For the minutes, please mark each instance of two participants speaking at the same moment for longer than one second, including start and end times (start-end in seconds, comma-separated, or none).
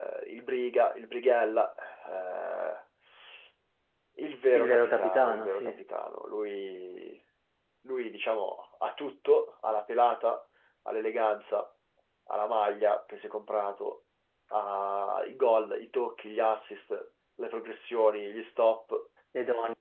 4.5-5.8